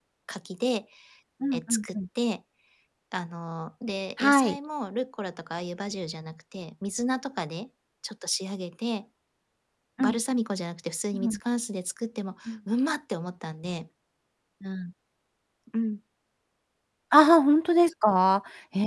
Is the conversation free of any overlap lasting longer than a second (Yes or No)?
Yes